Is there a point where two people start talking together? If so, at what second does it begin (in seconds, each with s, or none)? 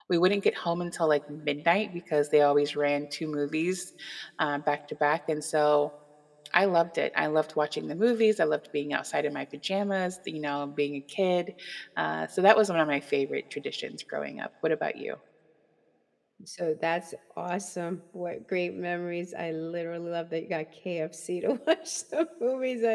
none